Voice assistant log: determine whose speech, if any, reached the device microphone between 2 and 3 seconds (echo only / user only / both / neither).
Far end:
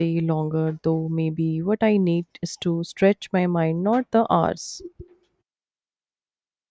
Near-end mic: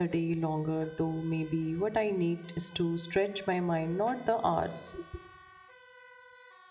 echo only